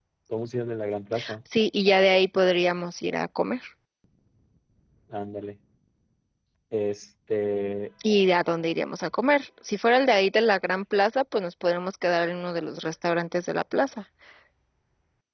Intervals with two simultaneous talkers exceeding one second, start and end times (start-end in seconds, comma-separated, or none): none